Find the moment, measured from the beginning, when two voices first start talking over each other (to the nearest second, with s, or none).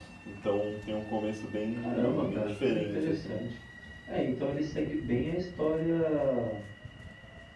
2 s